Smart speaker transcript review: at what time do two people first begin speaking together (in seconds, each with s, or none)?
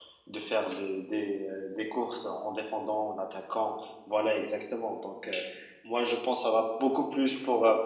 none